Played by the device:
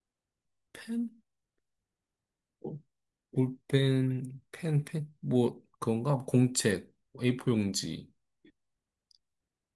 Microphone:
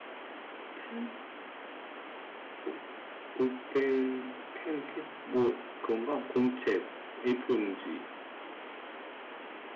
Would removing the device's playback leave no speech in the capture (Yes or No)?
Yes